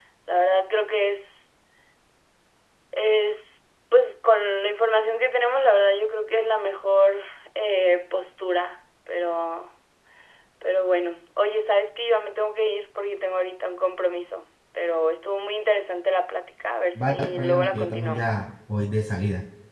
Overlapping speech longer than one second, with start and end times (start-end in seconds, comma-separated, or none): 17.0-18.4